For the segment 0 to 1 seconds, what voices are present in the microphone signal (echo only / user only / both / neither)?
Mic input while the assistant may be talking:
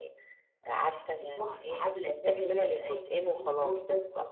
echo only